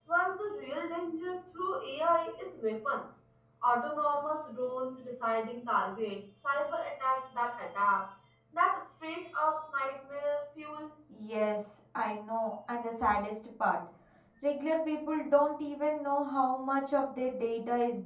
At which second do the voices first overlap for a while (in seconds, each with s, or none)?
none